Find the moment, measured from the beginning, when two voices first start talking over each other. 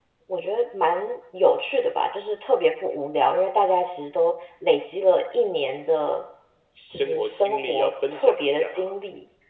7 s

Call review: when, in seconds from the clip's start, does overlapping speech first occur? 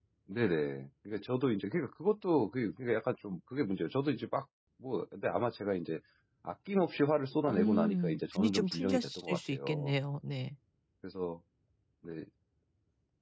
7 s

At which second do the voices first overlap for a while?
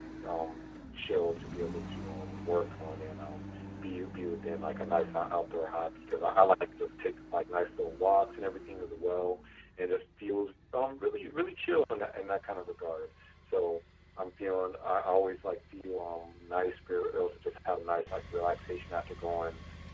none

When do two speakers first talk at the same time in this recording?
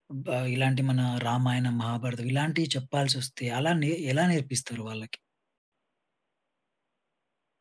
none

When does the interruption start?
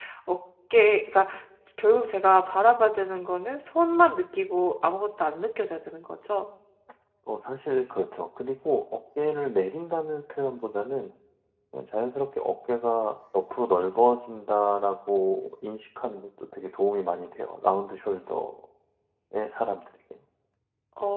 none

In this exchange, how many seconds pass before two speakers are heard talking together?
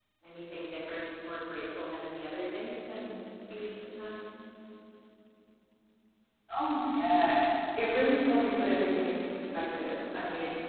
none

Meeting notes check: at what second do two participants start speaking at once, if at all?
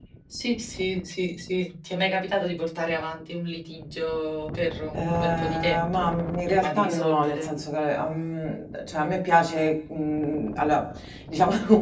5 s

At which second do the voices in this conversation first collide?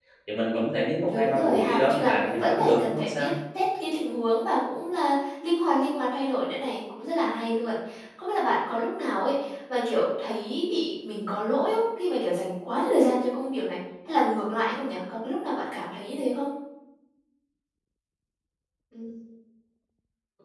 1 s

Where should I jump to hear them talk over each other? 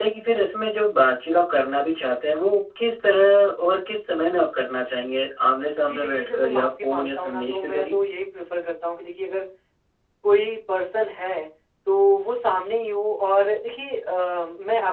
6 s

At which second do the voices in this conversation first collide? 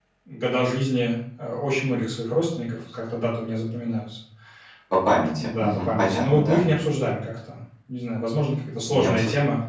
5 s

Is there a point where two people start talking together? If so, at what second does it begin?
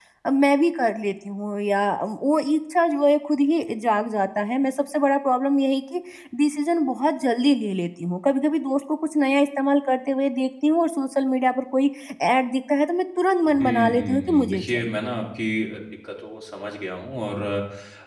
13 s

